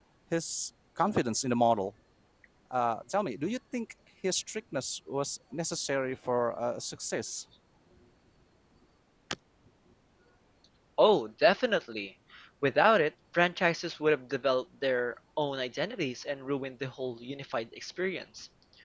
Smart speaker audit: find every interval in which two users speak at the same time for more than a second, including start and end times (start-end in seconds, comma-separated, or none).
none